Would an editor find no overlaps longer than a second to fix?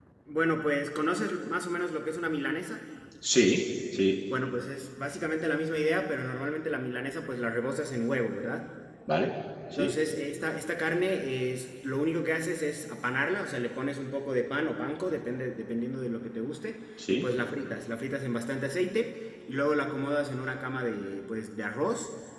Yes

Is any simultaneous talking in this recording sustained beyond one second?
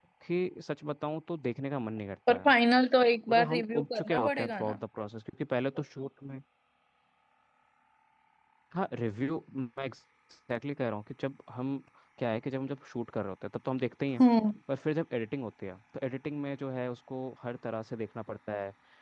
Yes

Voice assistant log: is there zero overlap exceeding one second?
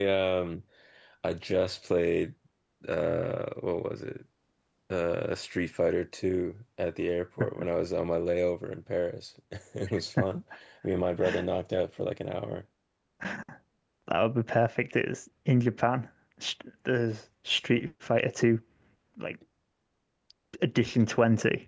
Yes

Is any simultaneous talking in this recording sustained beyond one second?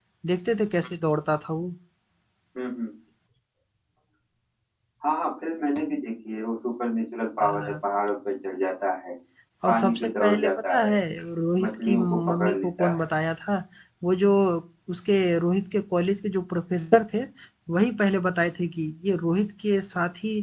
Yes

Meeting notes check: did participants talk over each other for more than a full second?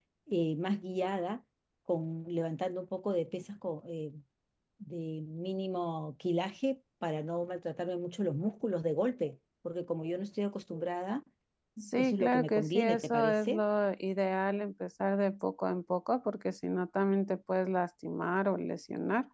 Yes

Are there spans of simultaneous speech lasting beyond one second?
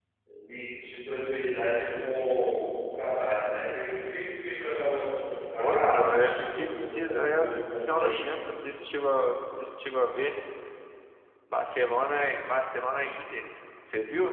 Yes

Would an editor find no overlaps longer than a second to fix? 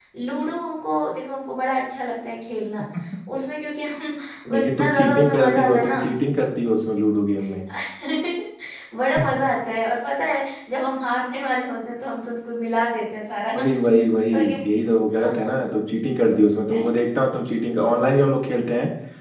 No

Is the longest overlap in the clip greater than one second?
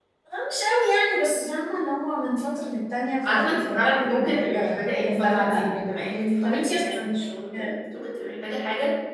Yes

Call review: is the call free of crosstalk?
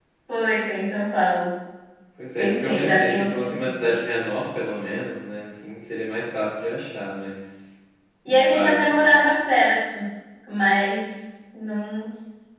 No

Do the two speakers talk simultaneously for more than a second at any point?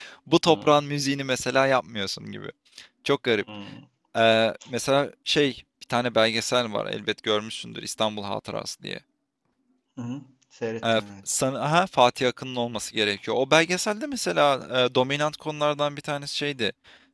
No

